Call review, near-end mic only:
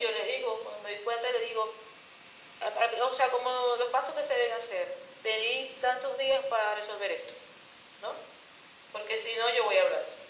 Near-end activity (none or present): none